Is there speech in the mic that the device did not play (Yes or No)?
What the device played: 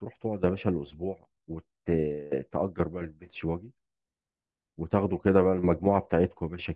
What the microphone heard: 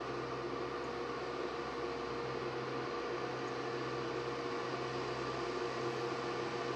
No